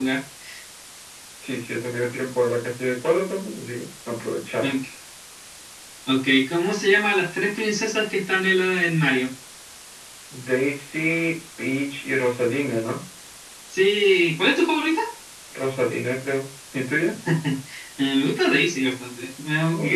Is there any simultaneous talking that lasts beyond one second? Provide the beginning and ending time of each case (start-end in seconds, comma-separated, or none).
none